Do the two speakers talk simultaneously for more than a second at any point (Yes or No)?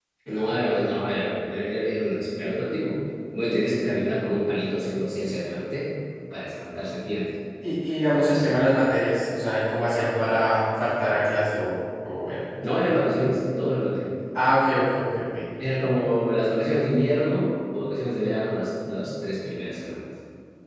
No